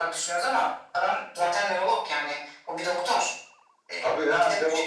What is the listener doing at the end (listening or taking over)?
taking over